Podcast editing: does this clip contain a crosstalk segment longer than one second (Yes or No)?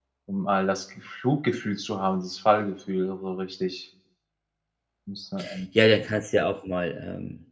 No